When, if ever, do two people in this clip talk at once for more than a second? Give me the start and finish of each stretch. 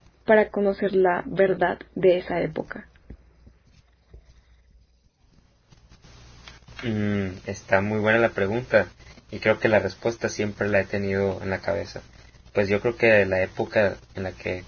none

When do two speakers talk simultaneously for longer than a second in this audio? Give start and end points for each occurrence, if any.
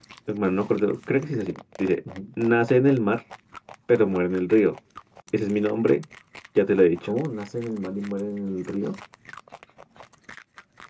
none

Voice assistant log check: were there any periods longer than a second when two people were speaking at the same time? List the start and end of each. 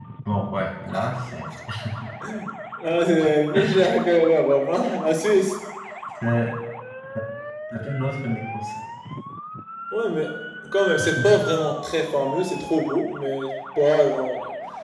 none

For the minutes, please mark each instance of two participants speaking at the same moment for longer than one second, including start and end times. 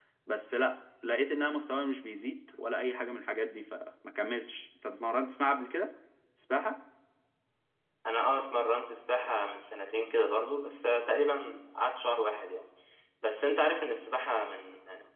none

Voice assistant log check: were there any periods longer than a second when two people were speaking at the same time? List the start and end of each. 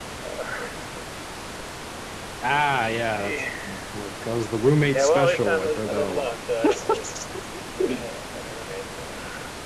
4.9-6.3

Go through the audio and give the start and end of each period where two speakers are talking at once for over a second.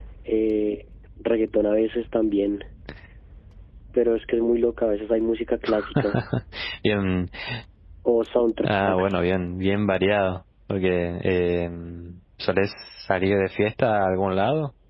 none

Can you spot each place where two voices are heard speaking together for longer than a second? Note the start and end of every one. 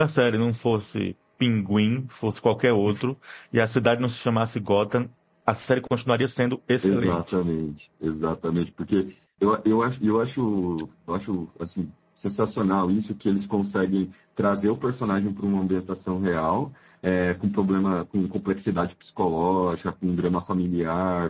none

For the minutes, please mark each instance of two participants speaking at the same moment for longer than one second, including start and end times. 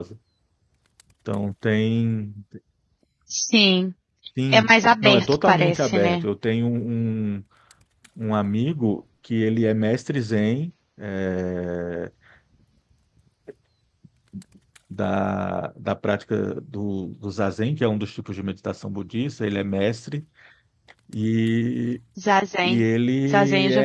4.5-6.3

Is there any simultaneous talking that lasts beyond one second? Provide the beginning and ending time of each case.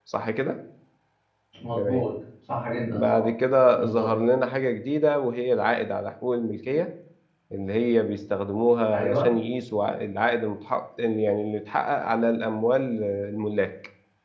none

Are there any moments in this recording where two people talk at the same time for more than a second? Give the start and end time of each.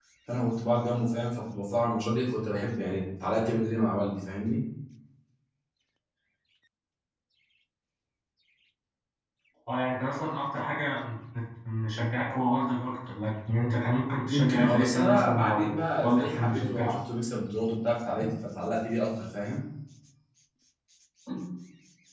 14.3-16.9

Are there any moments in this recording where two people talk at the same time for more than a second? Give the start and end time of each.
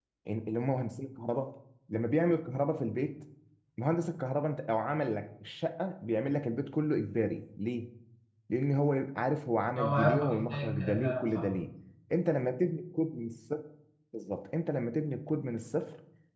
9.8-11.5

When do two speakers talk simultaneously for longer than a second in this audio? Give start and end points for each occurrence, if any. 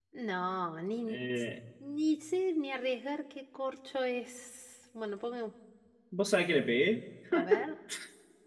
none

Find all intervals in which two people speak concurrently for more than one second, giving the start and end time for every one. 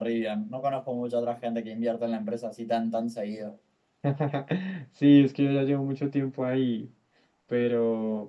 none

